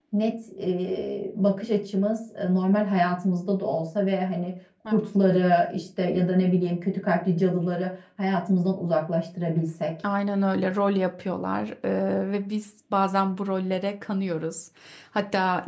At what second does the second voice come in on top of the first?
none

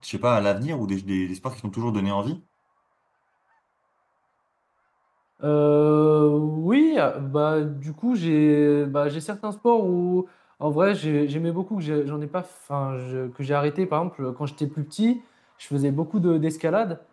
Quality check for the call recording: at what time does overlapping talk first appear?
none

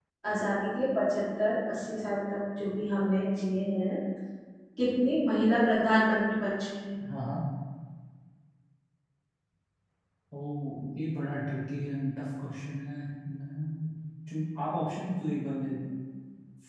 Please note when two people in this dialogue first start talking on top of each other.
none

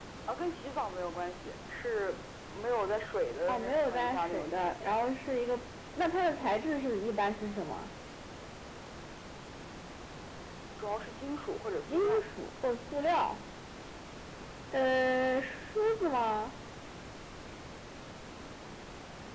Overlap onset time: 3.5 s

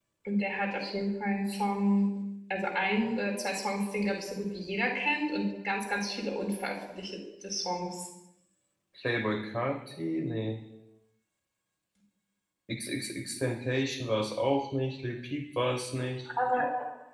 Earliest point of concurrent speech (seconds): none

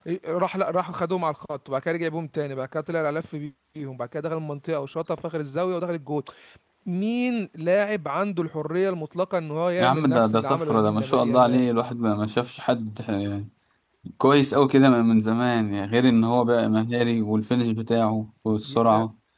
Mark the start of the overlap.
9.8 s

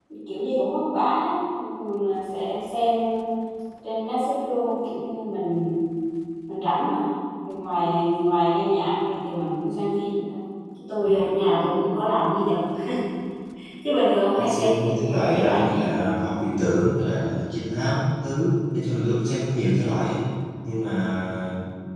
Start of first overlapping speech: 14.4 s

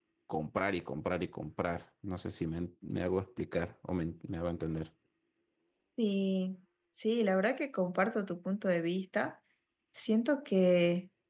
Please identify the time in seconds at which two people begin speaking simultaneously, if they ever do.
none

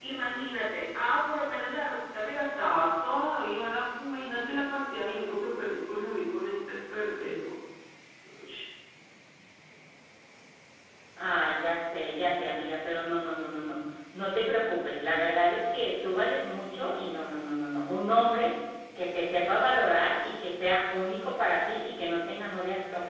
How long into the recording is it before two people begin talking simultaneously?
none

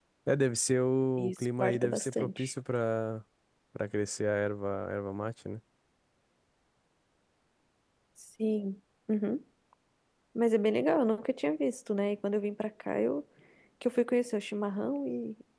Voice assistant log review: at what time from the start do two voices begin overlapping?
1.2 s

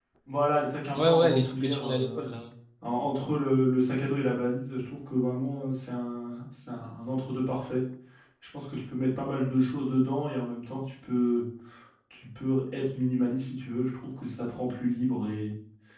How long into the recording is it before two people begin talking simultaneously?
1.0 s

